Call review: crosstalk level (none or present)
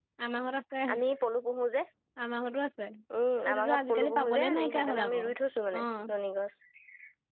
present